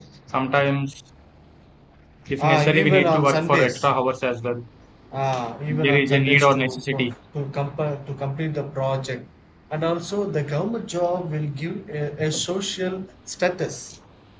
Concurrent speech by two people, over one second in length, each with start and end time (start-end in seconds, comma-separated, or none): 2.4-3.9, 5.7-7.1